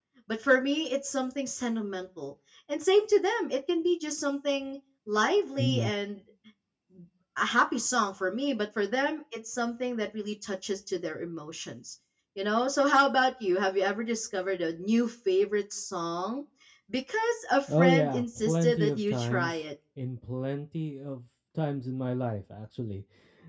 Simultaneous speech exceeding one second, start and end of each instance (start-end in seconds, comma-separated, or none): 17.7-19.6